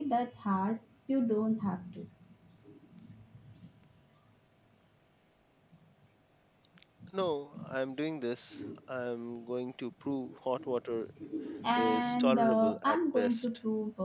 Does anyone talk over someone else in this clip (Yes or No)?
Yes